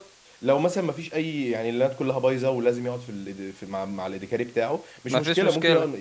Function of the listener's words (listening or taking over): listening